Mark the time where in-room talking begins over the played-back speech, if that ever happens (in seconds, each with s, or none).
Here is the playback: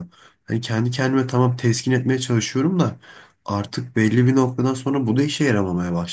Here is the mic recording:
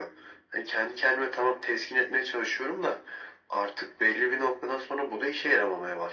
none